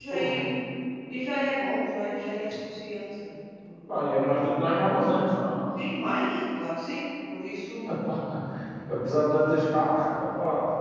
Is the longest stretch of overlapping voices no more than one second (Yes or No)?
Yes